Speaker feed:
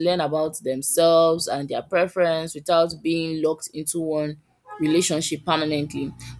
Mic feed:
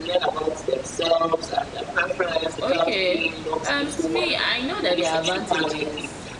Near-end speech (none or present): present